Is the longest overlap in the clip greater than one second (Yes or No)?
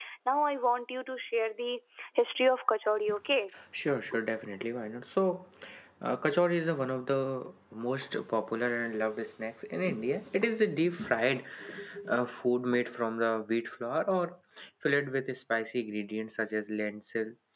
No